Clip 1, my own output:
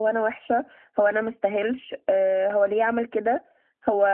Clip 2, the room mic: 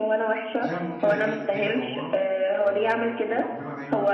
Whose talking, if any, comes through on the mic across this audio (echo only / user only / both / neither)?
both